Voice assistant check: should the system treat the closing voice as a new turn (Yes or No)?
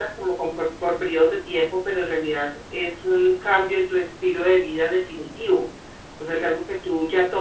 No